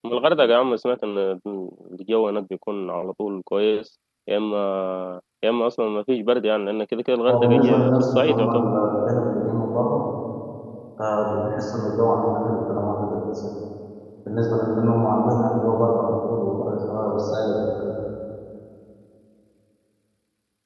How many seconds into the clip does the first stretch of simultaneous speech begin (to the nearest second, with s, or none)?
7 s